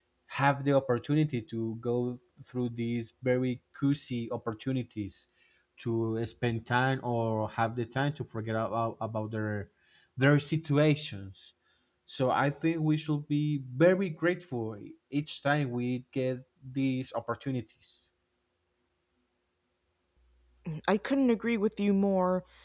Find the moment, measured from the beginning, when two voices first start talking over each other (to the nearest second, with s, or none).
none